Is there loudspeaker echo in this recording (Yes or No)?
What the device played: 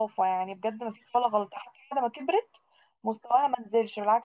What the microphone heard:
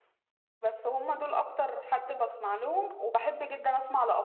No